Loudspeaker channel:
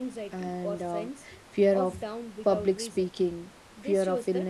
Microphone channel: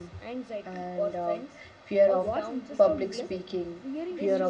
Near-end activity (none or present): present